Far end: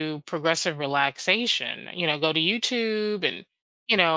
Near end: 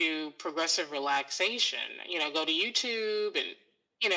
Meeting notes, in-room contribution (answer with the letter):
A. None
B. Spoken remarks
A